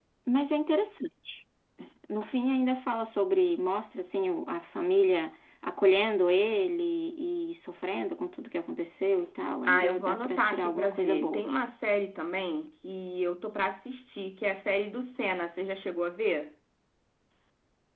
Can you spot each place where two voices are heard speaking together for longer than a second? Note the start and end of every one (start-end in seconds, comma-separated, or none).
9.7-11.4